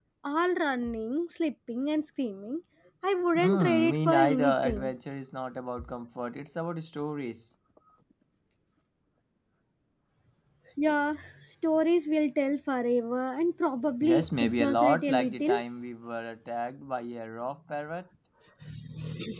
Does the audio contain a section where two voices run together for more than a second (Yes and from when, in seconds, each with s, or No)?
Yes, from 3.4 s